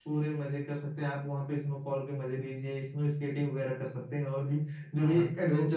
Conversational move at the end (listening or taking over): taking over